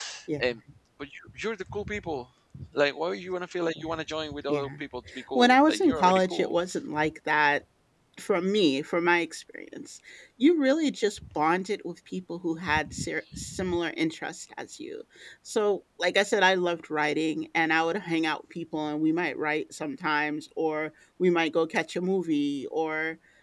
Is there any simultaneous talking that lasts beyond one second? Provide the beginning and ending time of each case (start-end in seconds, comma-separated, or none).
5.4-6.6